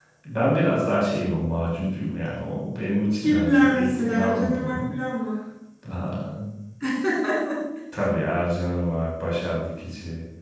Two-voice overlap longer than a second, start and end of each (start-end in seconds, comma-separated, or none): 3.1-4.8